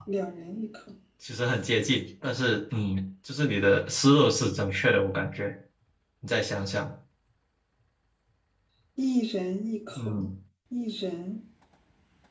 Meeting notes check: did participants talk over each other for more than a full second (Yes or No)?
No